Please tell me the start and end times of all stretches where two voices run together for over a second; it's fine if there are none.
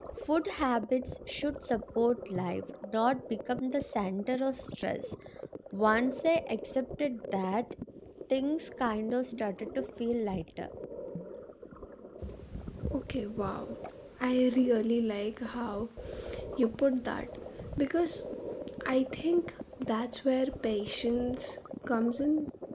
none

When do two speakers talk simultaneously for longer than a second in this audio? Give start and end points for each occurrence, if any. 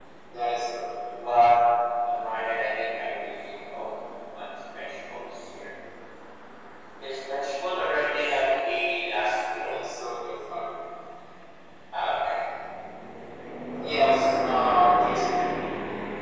none

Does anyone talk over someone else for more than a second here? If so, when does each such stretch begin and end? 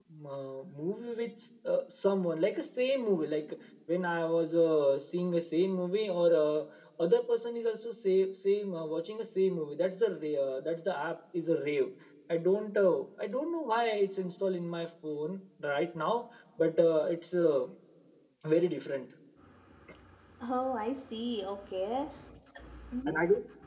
none

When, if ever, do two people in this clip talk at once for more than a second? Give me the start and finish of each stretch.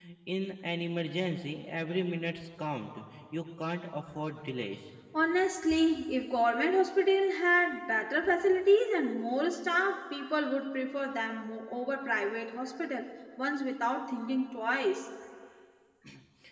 none

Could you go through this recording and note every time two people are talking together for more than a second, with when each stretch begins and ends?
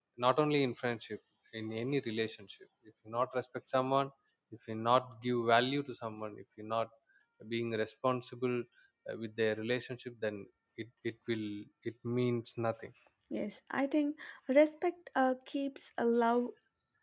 none

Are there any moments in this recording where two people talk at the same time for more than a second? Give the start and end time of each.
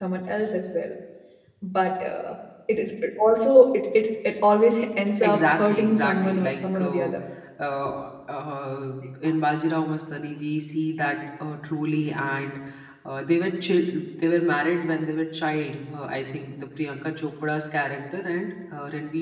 5.2-7.1

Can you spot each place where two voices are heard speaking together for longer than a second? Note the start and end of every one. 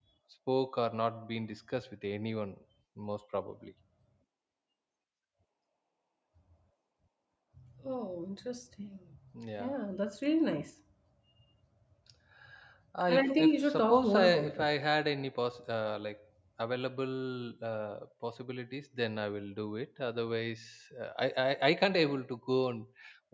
13.1-14.7

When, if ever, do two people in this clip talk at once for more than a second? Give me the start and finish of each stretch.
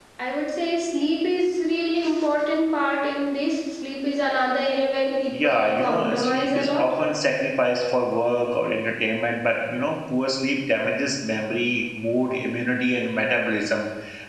5.3-6.9

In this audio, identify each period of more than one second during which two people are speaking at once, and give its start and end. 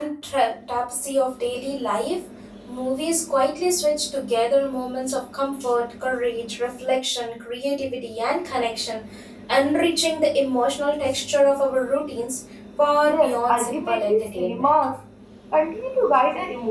13.1-14.7

